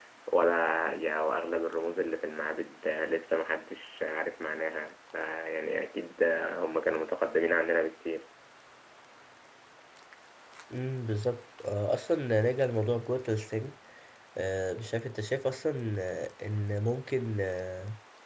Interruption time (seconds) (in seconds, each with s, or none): none